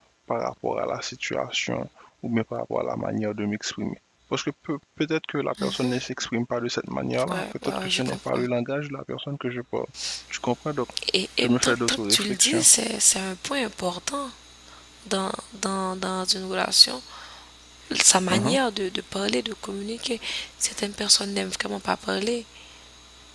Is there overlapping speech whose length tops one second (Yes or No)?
Yes